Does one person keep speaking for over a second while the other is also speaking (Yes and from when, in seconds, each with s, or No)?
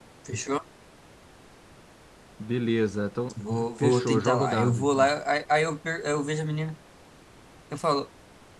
Yes, from 3.8 s